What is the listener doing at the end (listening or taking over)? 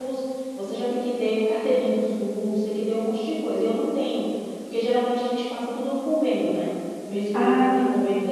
listening